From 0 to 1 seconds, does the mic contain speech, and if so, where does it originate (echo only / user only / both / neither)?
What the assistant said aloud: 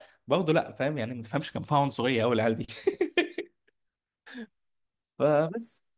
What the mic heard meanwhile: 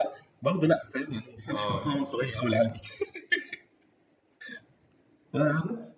echo only